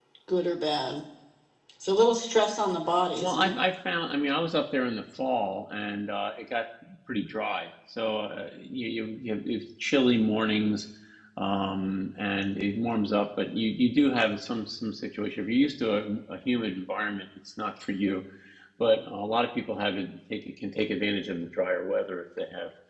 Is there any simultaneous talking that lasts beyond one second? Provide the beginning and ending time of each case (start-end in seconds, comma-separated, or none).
none